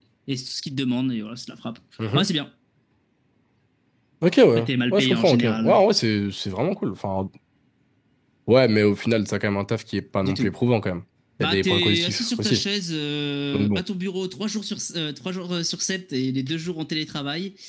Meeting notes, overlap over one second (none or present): present